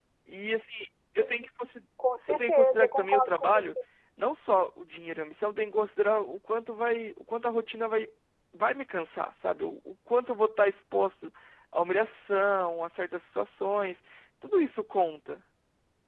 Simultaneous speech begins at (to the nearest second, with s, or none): 2 s